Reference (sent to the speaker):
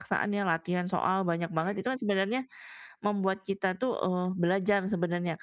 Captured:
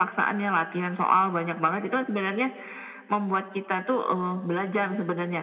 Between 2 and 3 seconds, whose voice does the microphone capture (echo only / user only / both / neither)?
echo only